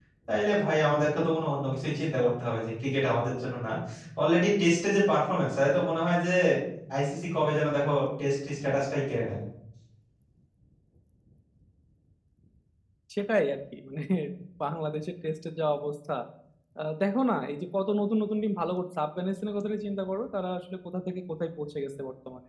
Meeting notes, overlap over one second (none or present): none